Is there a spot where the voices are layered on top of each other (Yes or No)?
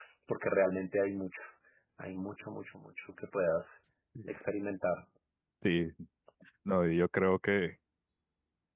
No